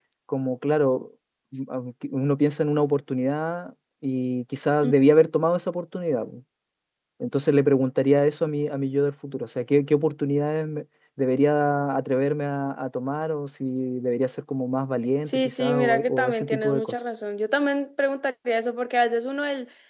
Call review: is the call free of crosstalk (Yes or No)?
No